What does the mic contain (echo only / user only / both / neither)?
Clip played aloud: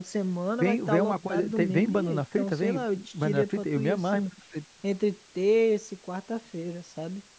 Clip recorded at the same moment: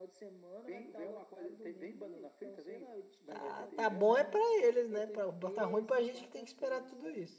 both